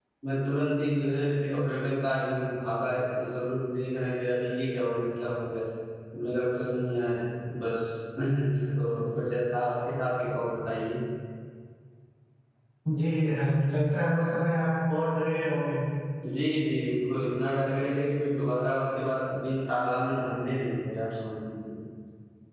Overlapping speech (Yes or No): No